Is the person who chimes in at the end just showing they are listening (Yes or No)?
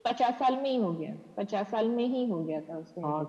No